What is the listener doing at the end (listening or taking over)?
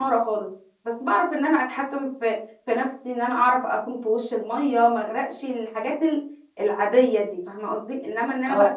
taking over